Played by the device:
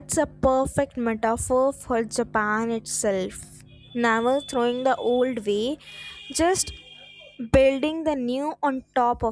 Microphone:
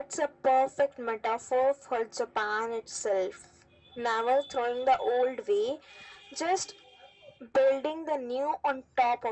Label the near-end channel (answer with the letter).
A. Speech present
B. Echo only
B